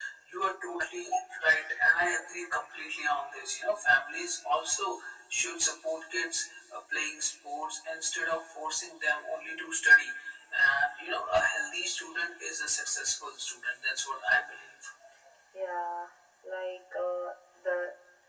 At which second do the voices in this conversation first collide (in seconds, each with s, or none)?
none